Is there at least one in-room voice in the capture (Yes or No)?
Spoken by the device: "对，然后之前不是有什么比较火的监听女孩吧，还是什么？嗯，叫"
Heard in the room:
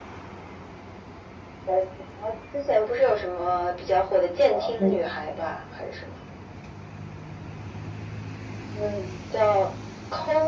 Yes